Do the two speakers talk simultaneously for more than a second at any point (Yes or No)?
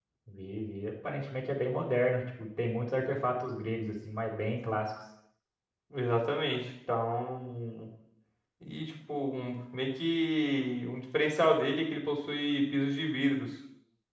No